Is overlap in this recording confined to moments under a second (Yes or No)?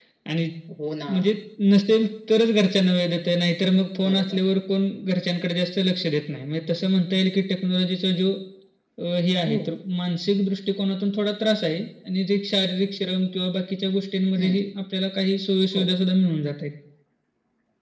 Yes